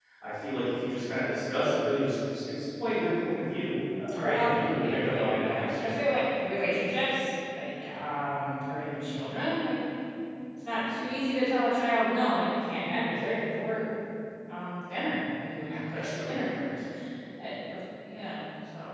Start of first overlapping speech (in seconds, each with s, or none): 4.2 s